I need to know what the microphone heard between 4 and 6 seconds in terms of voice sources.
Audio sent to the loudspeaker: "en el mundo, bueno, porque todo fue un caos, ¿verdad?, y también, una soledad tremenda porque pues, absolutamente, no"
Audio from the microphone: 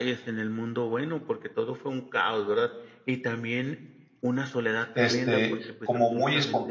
both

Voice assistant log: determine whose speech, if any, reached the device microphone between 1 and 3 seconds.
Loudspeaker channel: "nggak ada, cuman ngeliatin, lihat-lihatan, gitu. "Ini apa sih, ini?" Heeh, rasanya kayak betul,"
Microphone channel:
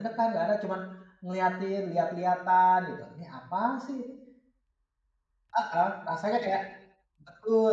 echo only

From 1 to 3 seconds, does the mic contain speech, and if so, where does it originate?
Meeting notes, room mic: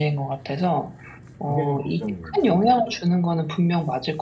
both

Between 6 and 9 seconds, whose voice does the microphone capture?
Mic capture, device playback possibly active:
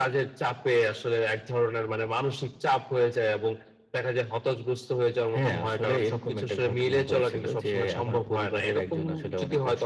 echo only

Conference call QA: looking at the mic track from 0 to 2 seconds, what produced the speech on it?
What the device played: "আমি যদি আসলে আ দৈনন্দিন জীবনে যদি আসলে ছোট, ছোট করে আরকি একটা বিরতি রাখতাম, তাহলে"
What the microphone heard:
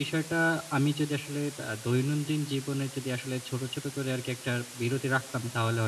echo only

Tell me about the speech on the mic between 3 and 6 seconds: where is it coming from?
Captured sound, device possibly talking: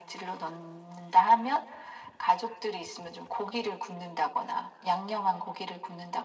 echo only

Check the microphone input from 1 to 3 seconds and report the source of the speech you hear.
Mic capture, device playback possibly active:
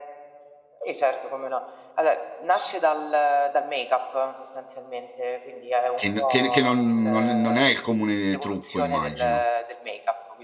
echo only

